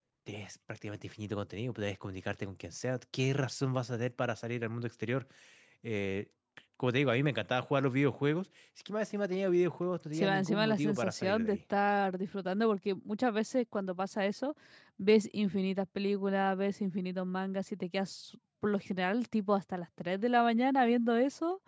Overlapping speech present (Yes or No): Yes